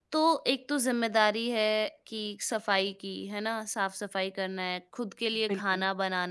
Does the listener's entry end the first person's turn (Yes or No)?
No